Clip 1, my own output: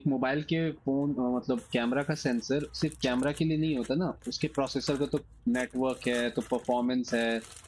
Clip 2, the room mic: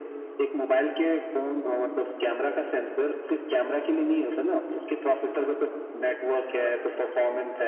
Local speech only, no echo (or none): none